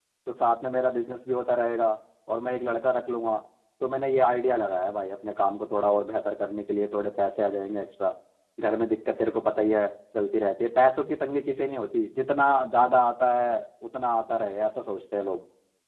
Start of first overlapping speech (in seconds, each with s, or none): none